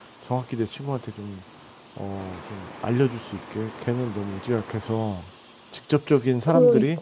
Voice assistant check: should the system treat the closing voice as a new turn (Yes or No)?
No